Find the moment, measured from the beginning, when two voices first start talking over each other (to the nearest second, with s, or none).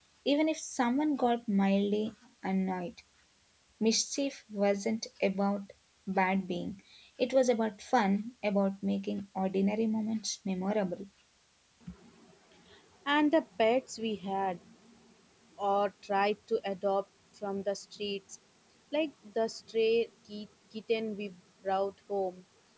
none